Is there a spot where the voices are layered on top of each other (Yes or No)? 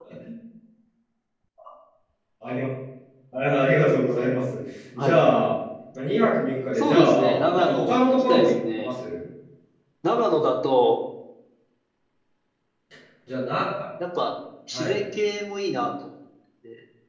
Yes